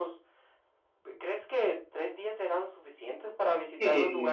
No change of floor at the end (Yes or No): No